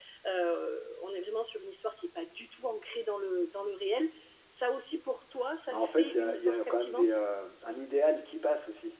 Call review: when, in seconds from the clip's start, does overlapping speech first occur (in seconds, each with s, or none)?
5.7 s